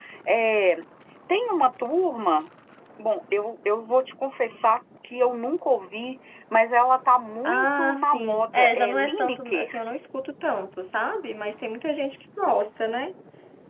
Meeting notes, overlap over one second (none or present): present